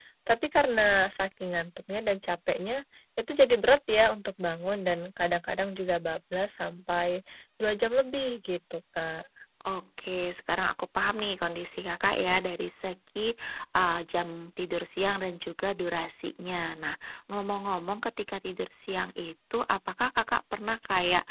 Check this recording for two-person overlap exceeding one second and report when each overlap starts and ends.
none

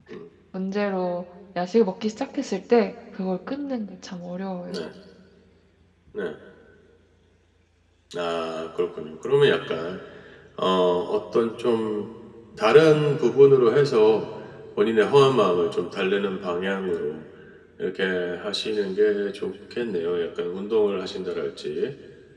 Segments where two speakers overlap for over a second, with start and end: none

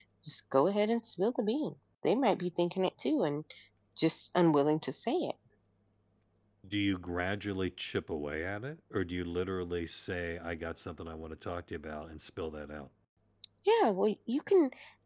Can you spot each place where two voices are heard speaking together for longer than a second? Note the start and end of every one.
none

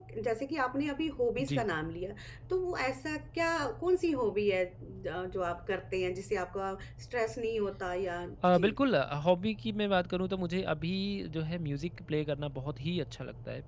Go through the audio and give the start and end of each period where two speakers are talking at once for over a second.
none

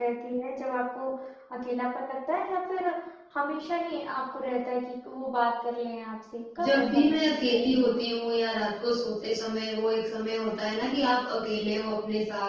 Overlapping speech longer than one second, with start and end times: 6.6-8.0

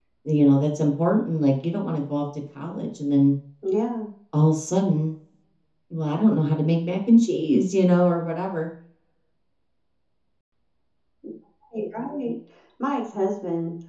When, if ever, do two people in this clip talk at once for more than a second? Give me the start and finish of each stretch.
none

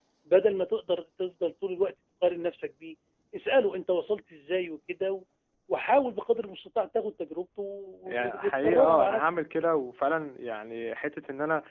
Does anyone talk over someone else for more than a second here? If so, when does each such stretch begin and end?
8.0-9.4

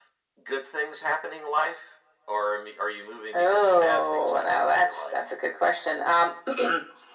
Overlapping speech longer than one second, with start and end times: 3.3-5.2

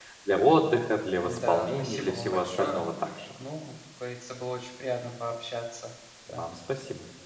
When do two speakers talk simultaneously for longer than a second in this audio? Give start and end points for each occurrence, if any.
1.2-2.8

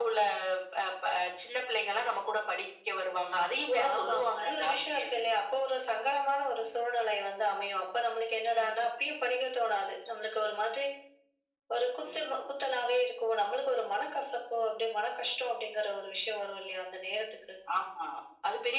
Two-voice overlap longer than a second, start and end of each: 3.7-5.2

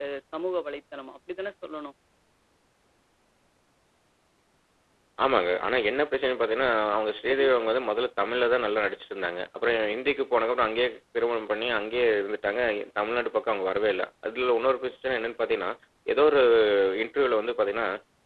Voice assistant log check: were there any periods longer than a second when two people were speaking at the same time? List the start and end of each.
none

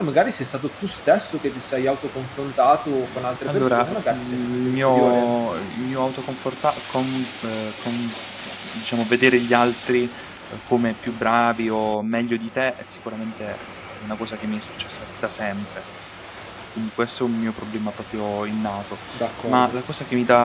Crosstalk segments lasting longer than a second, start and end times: 3.5-5.4

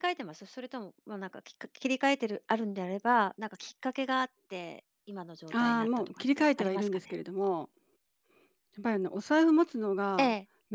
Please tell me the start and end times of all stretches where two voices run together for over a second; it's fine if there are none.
5.5-7.1

